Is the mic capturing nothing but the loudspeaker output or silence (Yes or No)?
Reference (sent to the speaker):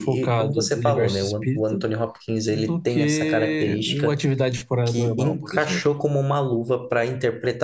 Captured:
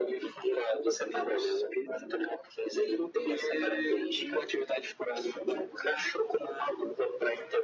Yes